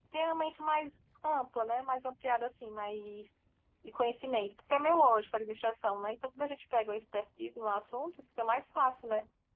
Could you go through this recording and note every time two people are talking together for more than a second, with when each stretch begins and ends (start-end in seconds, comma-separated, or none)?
none